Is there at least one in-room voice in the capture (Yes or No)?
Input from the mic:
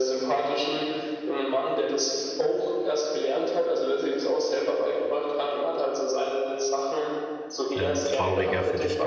Yes